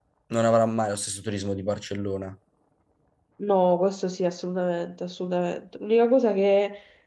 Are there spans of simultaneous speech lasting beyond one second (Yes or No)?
No